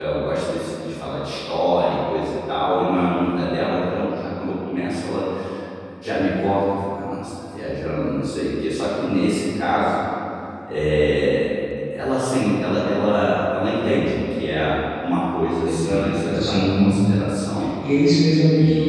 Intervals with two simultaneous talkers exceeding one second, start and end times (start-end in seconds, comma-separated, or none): 15.6-16.9